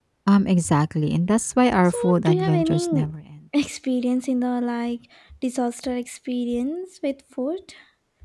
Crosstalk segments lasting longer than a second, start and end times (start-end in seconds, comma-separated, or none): 1.9-3.1